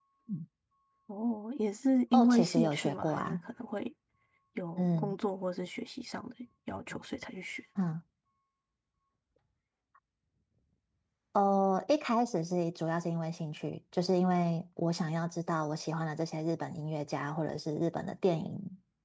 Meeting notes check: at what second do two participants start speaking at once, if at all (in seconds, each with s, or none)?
2.1 s